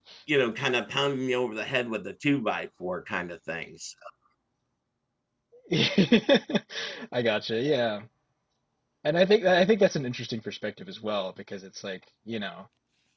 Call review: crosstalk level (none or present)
none